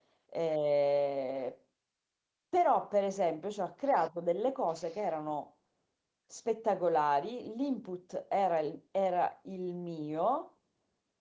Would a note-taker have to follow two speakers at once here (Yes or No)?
No